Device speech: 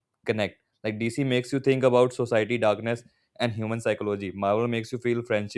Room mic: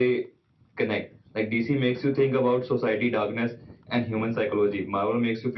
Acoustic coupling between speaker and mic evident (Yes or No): Yes